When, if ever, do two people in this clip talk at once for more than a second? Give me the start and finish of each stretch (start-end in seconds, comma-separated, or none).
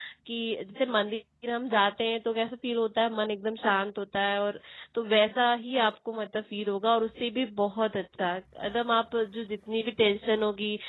none